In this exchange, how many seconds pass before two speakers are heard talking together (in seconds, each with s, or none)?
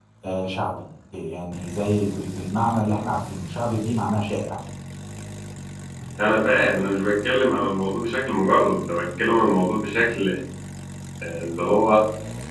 none